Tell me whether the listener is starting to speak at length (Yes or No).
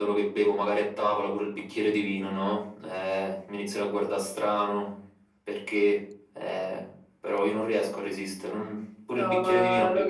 Yes